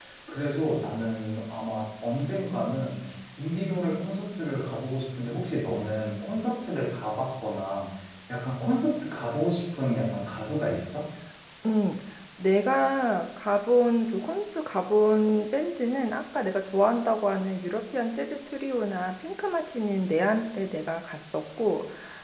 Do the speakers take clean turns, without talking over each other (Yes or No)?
Yes